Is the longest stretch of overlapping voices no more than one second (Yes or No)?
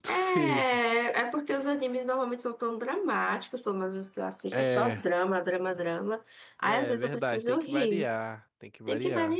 No